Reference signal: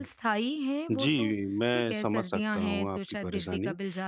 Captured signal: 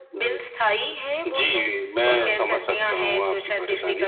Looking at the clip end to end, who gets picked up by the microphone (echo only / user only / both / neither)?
both